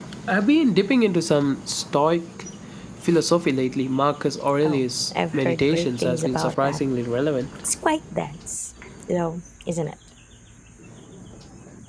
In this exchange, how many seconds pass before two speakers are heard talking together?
4.6 s

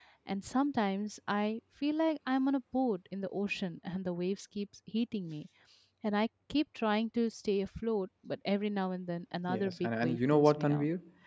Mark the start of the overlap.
9.5 s

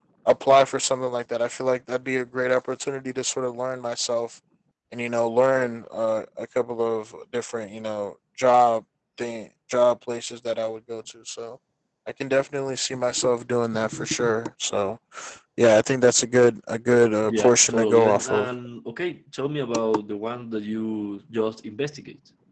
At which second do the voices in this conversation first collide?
17.2 s

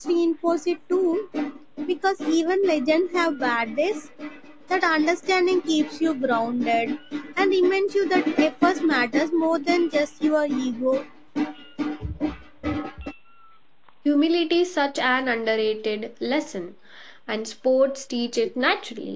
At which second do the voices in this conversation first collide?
none

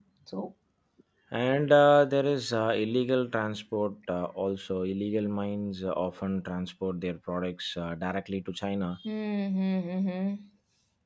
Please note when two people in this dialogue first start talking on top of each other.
none

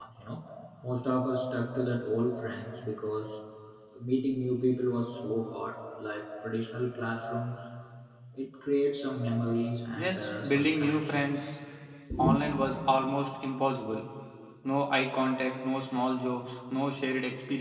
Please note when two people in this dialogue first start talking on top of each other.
9.9 s

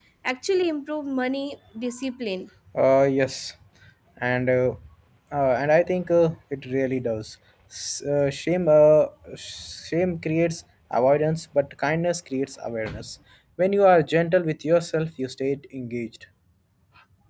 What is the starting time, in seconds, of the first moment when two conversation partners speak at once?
none

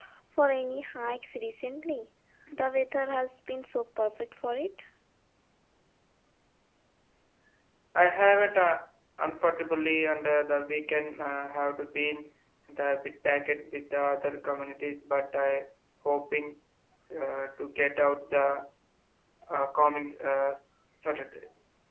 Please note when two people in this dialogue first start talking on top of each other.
none

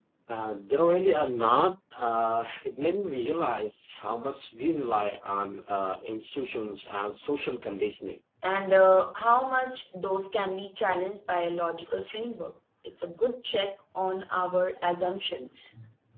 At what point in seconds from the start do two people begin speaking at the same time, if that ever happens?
none

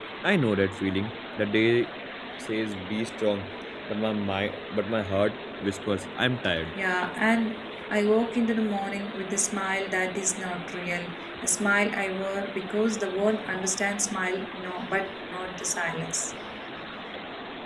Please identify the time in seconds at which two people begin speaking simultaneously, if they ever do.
none

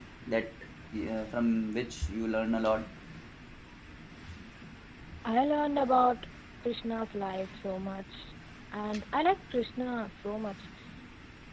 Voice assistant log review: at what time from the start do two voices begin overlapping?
none

